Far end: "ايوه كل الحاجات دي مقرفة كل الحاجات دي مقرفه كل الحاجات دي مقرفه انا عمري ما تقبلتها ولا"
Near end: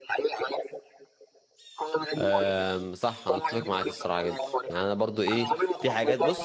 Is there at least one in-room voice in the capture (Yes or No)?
Yes